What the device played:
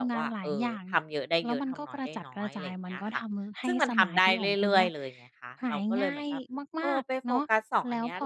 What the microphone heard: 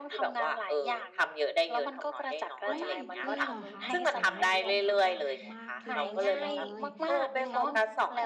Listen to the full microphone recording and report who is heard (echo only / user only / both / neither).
both